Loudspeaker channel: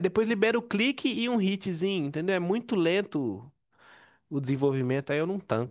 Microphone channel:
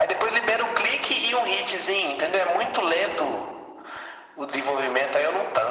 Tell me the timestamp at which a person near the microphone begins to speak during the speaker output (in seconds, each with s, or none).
none